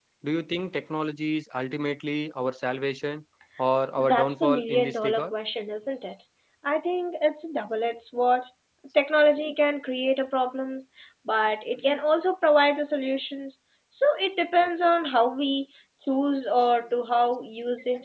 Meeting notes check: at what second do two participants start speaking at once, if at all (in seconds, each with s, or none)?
4.0 s